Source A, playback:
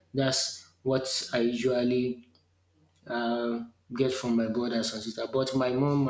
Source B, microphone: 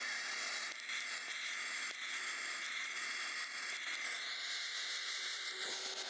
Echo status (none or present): none